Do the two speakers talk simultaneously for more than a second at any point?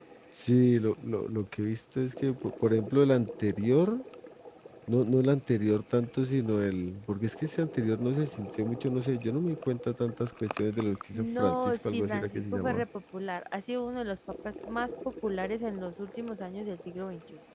Yes, from 11.1 s

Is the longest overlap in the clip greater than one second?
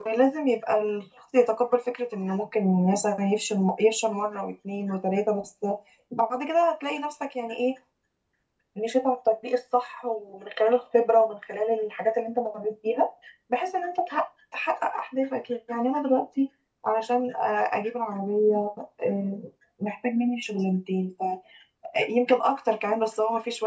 No

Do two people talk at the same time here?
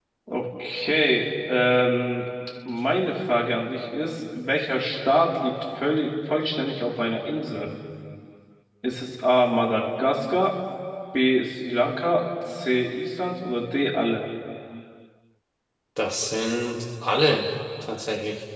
No

